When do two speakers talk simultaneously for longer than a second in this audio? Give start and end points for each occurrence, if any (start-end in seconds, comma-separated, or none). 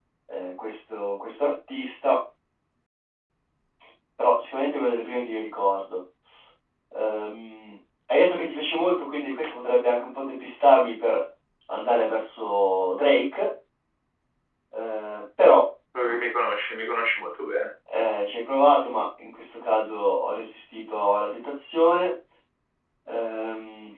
none